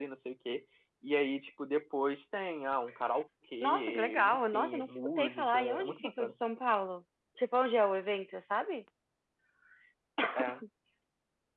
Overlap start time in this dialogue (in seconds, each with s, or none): 3.6 s